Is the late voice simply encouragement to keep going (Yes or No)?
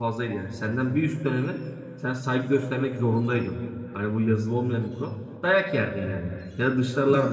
Yes